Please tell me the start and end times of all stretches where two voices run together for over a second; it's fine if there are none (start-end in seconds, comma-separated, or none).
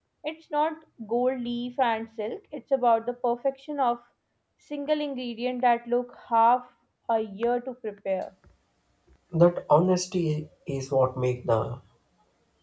none